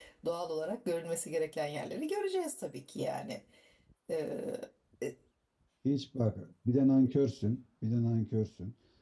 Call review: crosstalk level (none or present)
none